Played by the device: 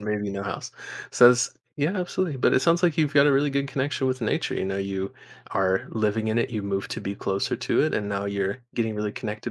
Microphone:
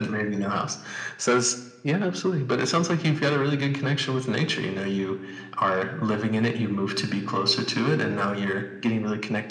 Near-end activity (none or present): none